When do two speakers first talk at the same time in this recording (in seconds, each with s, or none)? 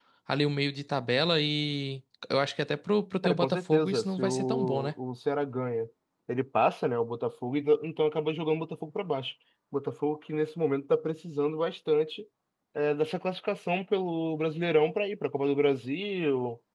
3.2 s